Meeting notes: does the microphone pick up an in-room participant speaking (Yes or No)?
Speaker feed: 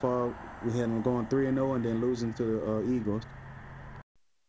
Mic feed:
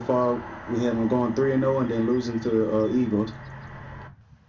No